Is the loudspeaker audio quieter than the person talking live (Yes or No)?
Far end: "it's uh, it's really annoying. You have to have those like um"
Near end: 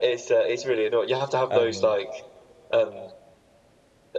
No